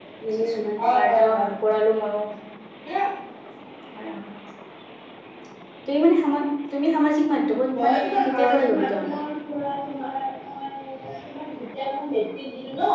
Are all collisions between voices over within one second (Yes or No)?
No